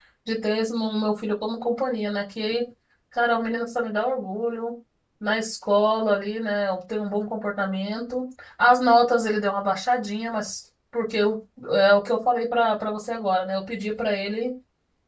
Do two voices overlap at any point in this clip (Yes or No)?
No